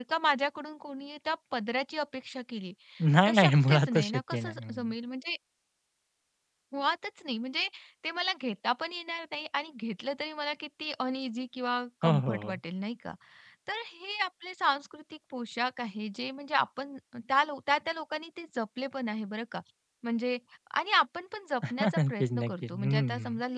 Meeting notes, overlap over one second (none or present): present